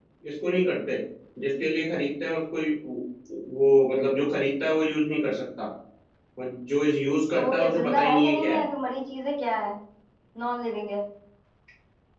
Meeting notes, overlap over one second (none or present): present